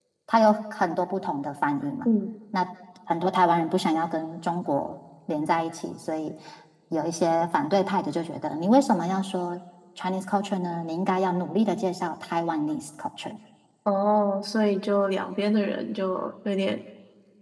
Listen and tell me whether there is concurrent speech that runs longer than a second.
No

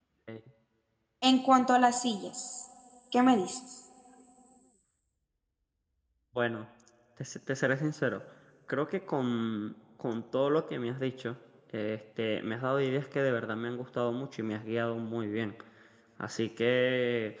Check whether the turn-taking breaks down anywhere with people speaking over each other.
No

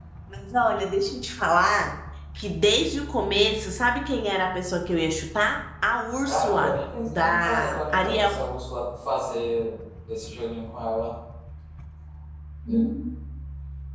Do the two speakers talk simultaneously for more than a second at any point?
Yes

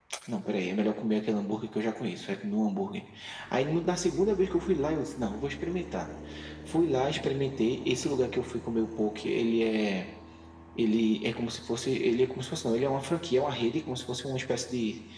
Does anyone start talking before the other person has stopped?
No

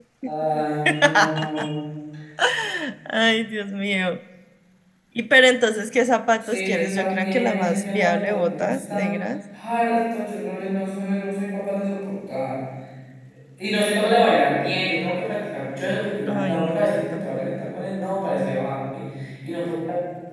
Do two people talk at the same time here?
Yes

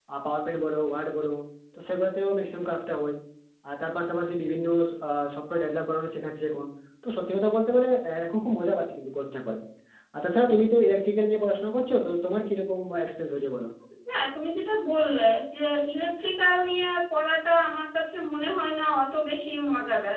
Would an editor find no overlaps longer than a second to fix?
Yes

